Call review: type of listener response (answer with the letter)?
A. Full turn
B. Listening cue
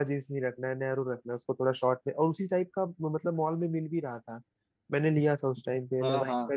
A